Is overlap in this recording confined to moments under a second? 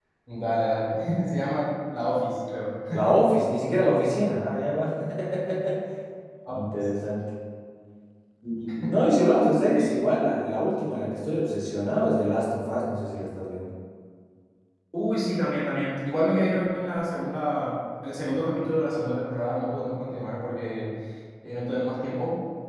Yes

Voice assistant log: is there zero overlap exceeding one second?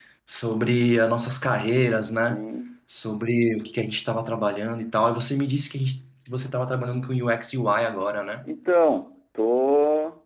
Yes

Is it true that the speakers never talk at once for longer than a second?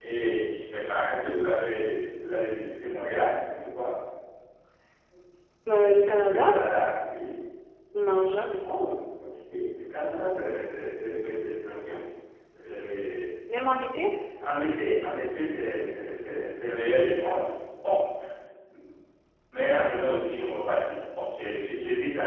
Yes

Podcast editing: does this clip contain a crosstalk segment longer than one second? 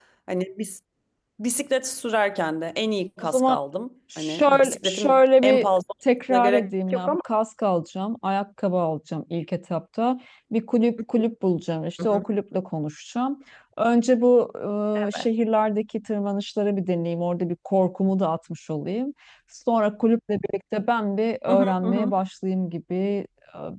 Yes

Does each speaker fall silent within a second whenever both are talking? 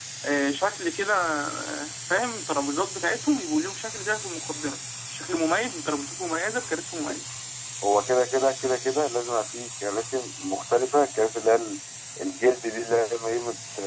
Yes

